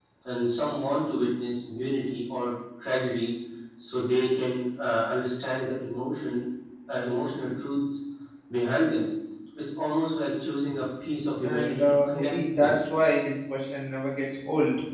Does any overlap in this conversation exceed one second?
Yes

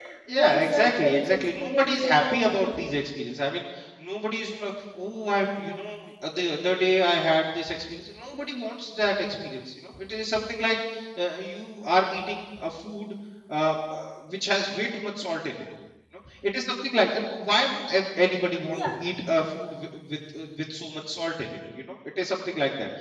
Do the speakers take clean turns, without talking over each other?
No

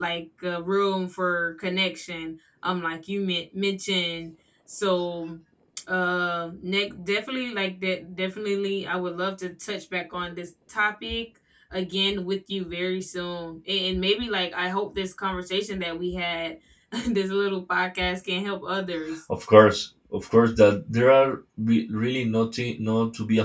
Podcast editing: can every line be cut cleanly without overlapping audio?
Yes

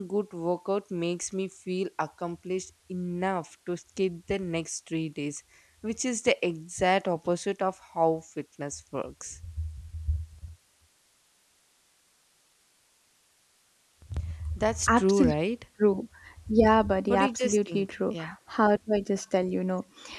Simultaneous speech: Yes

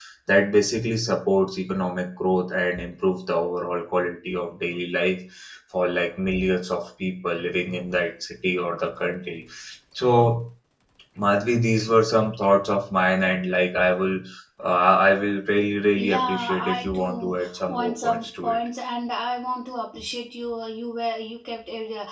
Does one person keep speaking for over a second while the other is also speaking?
Yes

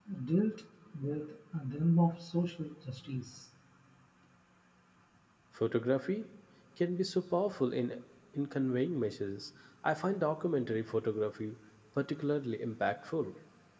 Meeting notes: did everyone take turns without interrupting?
Yes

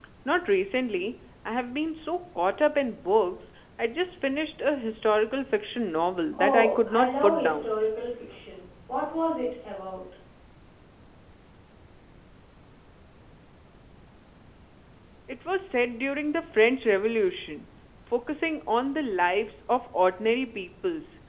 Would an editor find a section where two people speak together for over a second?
Yes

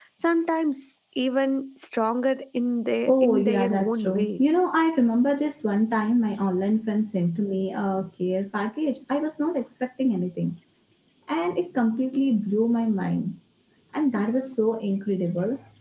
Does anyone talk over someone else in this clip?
Yes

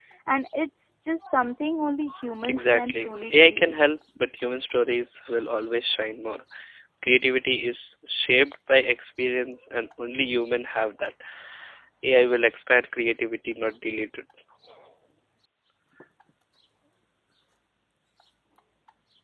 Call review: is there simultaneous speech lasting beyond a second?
Yes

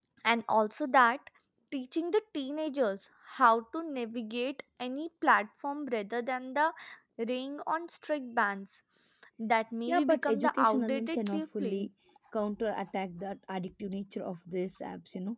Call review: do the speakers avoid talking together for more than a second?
No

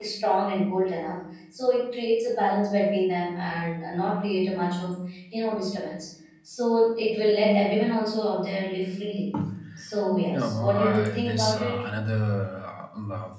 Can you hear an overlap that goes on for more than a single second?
Yes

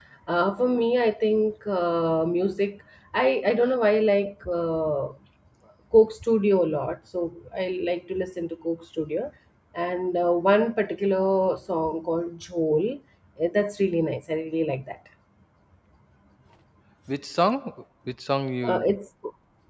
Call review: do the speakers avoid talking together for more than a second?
Yes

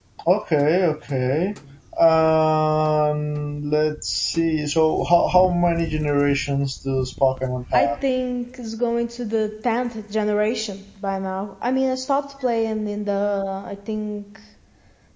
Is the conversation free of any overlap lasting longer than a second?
Yes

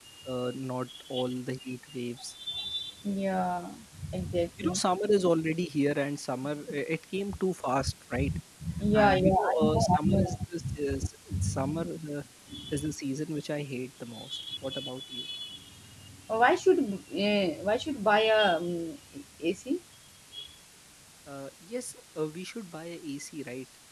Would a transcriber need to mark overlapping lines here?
Yes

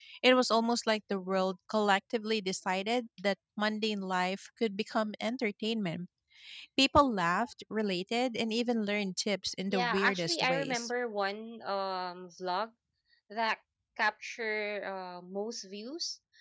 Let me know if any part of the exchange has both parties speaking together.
Yes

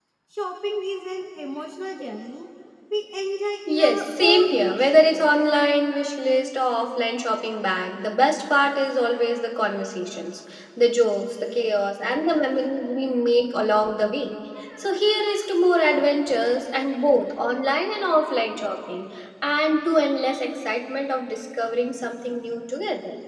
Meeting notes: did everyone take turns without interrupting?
No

